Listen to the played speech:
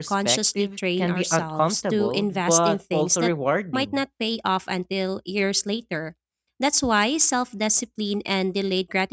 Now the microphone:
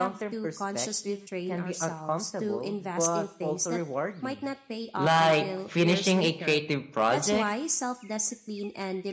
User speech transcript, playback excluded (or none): like finishing a creative project